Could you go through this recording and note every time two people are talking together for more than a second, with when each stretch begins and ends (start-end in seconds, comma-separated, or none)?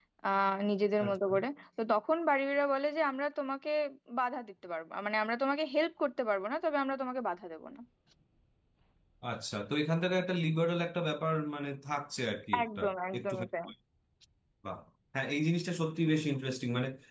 none